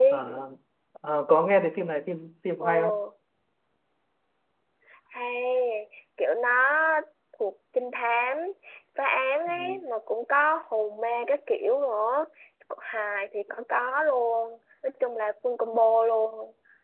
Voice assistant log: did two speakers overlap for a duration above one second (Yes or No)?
No